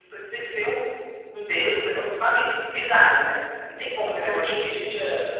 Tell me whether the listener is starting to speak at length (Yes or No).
Yes